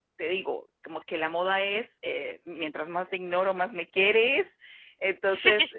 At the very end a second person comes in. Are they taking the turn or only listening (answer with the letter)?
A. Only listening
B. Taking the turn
A